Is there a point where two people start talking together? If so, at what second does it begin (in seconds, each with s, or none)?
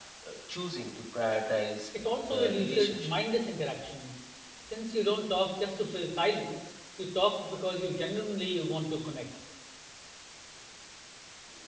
1.9 s